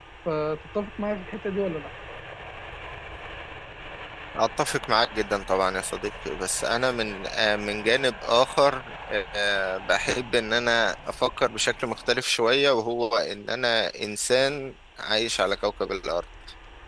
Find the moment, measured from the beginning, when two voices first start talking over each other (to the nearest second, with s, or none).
none